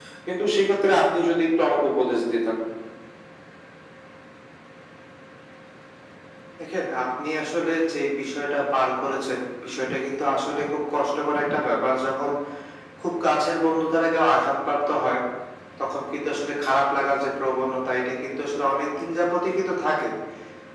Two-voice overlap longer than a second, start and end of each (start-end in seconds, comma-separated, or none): none